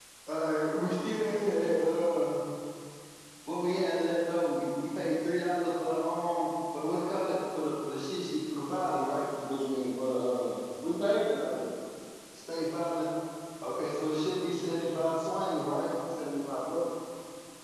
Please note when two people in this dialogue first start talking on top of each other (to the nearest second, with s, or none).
none